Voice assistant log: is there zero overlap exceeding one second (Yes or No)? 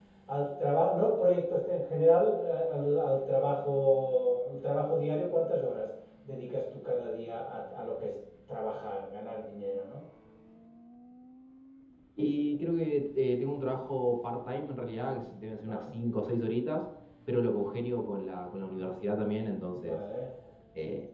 Yes